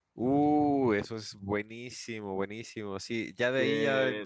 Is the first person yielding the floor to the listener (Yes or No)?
No